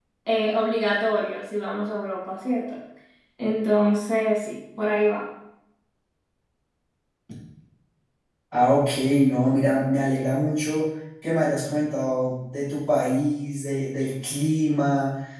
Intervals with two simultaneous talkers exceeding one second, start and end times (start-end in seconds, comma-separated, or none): none